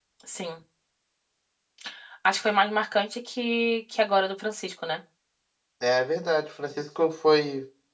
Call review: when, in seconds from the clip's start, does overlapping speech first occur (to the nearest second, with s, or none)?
none